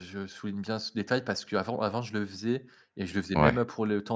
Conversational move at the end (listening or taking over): listening